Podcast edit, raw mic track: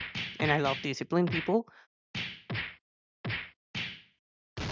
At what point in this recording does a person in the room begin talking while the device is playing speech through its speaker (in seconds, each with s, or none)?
0.4 s